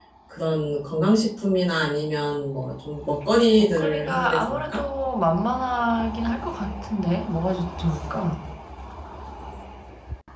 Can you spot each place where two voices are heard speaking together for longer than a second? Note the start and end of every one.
3.6-4.8

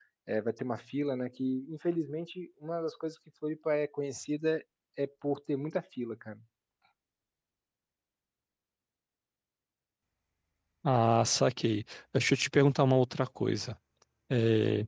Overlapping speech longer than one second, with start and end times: none

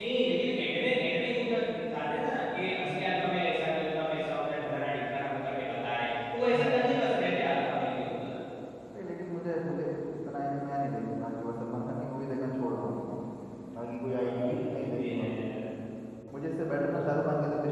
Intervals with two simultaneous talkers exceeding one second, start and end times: 14.1-15.4

